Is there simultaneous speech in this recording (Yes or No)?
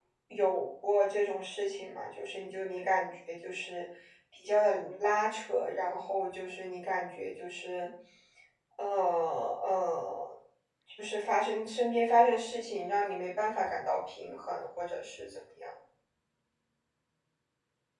No